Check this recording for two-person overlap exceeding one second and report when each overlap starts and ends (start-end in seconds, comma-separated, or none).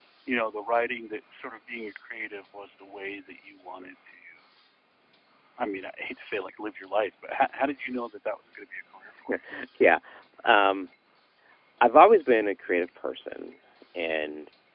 none